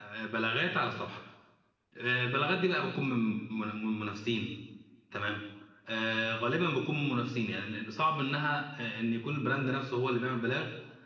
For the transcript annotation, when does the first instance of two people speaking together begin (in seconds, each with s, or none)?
none